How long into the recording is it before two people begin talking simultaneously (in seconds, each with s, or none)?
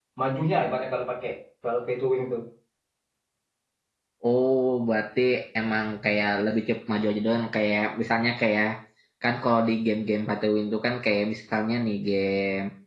none